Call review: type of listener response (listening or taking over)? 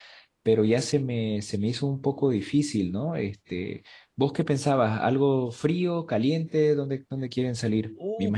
taking over